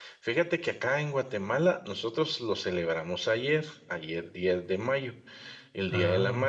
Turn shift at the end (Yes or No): No